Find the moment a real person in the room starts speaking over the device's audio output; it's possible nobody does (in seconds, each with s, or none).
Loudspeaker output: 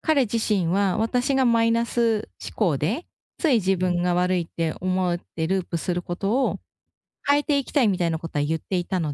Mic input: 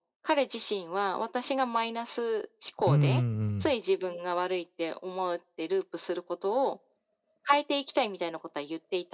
2.9 s